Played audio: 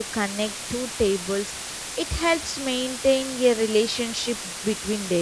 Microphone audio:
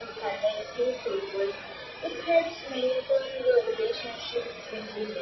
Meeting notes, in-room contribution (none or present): none